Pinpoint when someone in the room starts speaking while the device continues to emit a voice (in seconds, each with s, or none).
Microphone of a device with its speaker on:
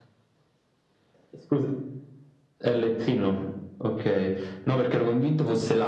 none